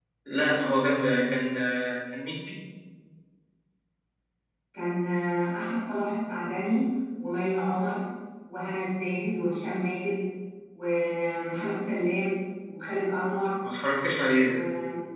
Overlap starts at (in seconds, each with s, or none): none